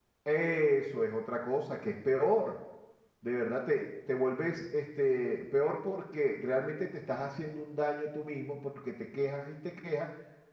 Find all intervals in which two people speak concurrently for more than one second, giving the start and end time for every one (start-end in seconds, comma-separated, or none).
none